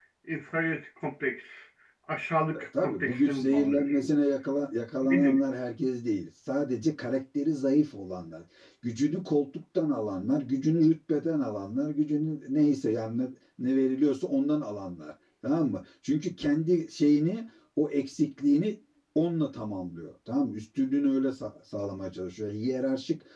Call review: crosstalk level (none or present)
present